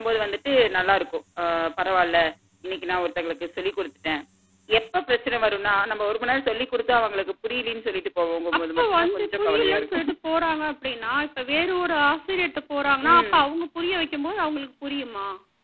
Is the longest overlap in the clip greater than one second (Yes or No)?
Yes